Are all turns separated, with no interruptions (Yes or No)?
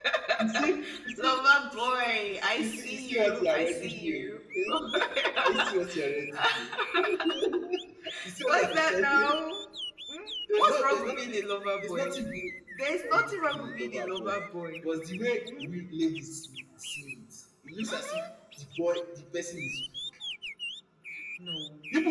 No